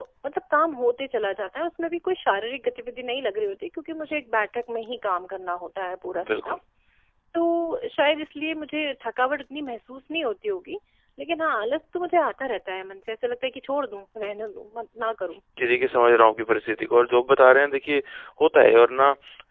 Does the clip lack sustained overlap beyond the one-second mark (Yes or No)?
Yes